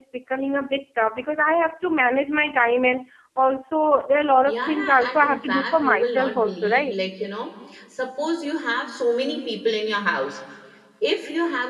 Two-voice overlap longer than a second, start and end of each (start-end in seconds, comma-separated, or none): 4.5-6.9